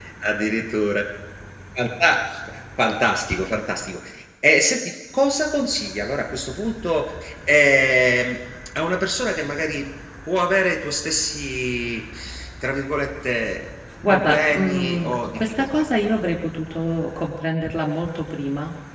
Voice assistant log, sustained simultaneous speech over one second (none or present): present